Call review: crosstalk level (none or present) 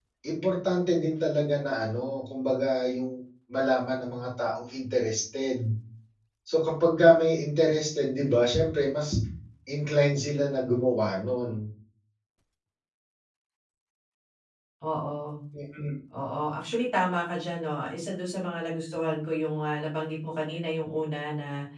none